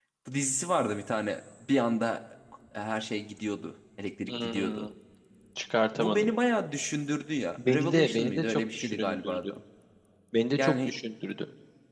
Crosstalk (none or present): present